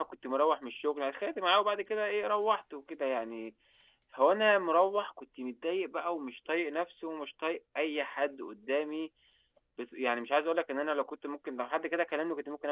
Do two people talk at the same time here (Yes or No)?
No